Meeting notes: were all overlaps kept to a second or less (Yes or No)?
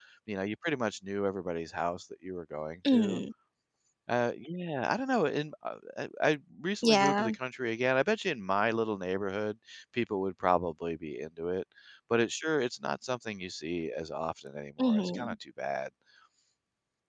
Yes